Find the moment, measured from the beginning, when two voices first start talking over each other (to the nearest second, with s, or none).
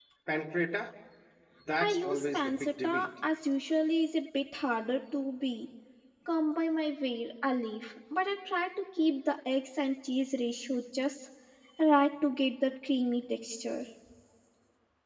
2 s